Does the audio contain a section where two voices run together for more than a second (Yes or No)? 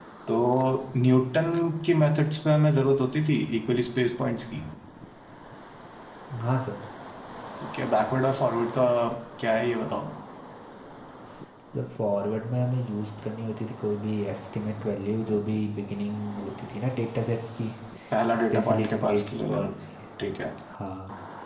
Yes